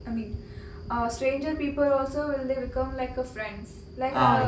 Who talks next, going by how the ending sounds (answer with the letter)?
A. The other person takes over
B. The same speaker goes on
B